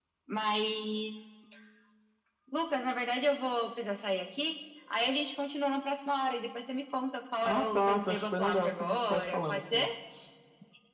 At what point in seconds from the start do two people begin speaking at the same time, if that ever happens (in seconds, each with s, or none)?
7.4 s